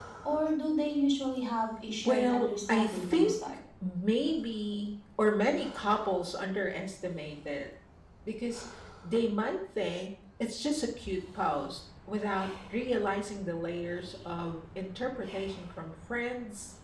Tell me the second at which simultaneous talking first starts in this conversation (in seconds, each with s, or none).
2.0 s